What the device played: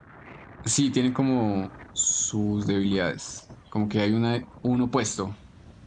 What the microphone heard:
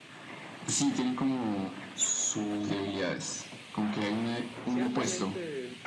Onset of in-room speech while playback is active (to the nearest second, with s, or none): 5 s